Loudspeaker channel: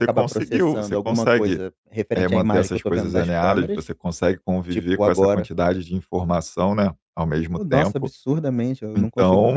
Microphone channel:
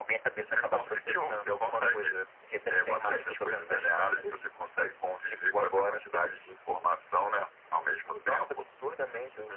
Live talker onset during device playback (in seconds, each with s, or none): none